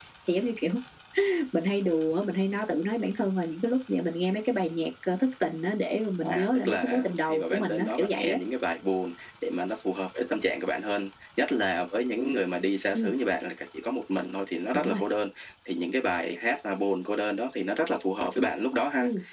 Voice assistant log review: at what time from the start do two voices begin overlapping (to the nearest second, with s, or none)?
6 s